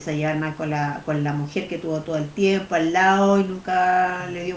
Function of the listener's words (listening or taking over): taking over